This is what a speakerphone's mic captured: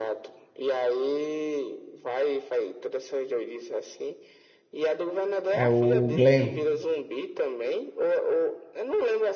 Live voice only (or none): É o Glenn.